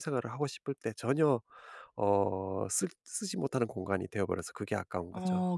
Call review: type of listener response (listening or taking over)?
taking over